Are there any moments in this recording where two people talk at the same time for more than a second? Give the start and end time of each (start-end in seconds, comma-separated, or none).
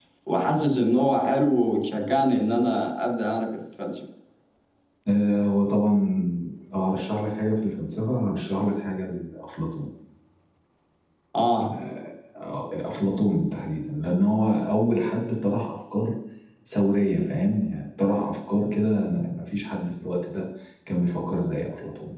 none